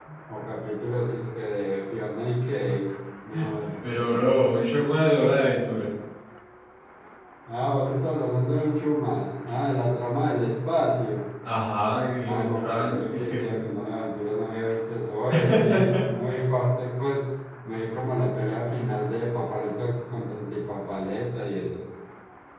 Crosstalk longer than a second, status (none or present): present